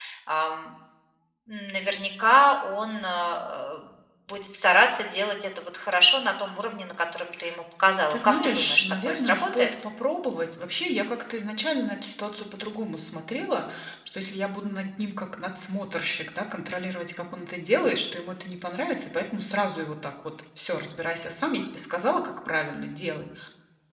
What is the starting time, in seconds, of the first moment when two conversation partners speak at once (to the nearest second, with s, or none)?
8 s